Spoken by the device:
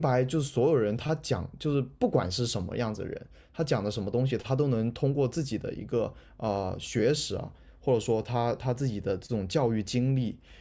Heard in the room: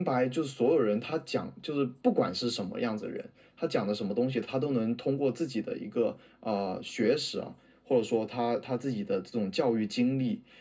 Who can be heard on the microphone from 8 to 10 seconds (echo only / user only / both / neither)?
echo only